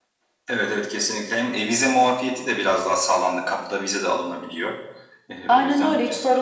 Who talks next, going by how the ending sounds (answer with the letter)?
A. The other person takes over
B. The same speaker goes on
A